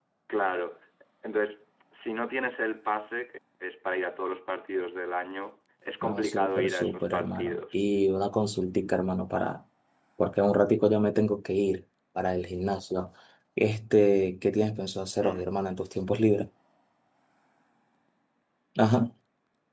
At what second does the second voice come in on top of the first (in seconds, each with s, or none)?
6.0 s